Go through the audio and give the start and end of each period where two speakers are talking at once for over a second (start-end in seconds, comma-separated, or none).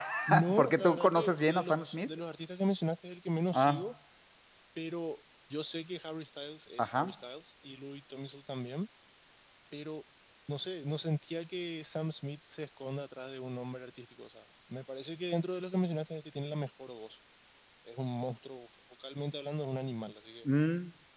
0.5-2.1